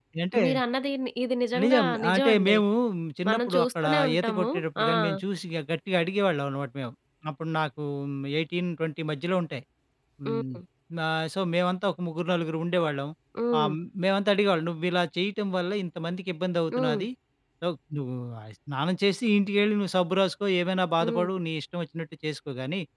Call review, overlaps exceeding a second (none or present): present